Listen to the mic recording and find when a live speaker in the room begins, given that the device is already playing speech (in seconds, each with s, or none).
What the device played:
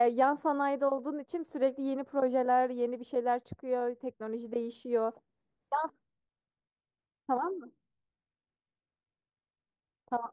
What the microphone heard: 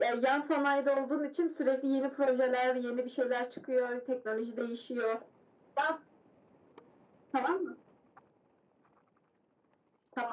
none